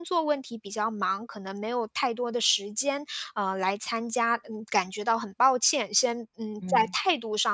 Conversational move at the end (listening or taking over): listening